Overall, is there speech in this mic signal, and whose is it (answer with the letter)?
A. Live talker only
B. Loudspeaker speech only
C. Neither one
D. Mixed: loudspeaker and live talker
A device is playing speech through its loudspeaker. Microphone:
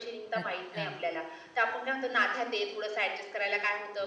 D